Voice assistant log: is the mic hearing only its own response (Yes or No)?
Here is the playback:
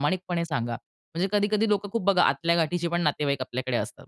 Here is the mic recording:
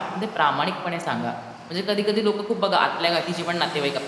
Yes